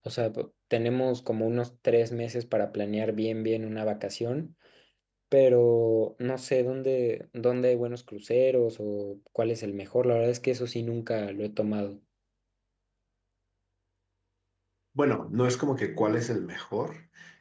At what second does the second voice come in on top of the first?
none

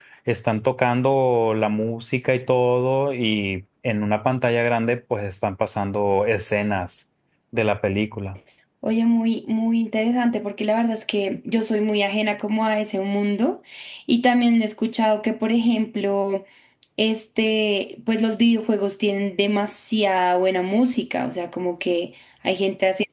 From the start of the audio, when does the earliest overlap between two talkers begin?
none

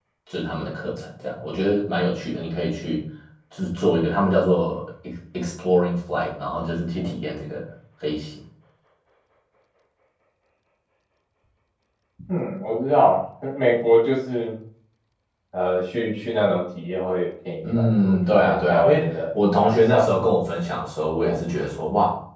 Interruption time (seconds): 17.6 s

